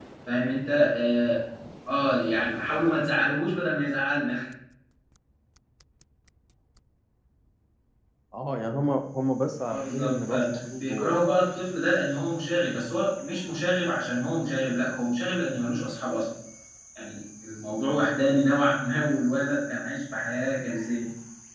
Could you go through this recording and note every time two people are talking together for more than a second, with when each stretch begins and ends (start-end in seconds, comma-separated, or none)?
9.7-11.2